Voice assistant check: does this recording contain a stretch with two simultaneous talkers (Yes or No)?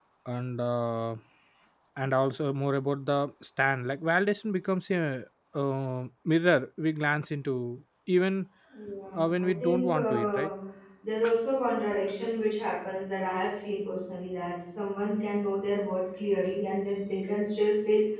Yes